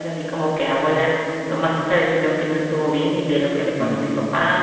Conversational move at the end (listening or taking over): listening